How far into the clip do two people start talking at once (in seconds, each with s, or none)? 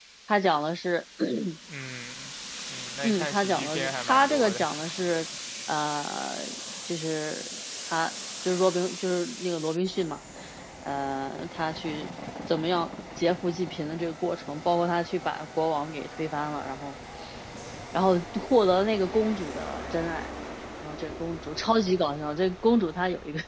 3.0 s